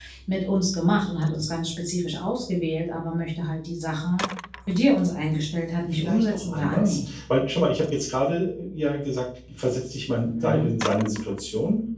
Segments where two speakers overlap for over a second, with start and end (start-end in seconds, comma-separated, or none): 5.9-7.2